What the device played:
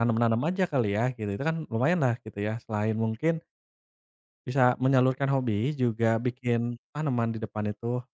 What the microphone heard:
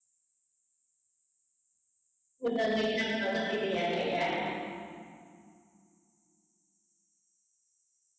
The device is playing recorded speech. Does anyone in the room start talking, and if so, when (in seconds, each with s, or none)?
2.4 s